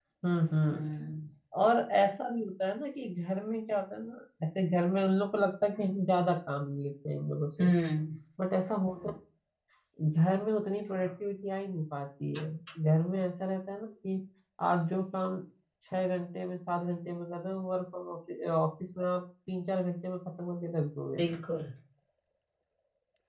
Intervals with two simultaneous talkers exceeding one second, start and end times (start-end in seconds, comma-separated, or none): none